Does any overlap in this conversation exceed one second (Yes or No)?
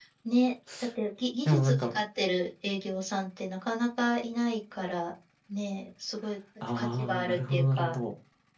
Yes